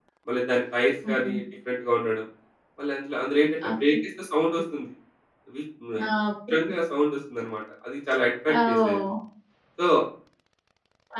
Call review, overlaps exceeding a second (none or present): none